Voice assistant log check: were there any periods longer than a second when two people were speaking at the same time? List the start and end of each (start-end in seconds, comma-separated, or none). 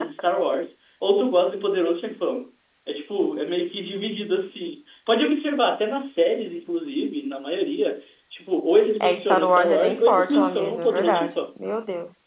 9.0-11.3